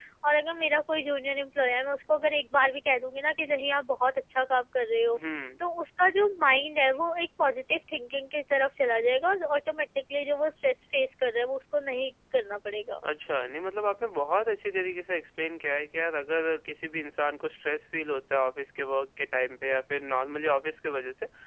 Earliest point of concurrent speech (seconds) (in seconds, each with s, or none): none